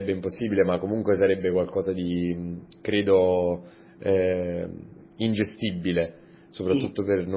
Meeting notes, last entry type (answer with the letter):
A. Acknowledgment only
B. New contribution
A